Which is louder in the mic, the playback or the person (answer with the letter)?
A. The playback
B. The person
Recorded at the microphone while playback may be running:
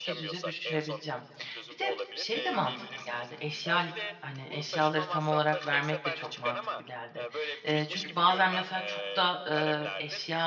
B